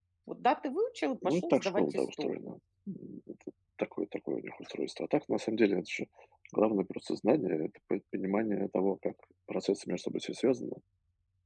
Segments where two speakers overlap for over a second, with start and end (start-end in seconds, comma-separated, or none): 1.2-2.5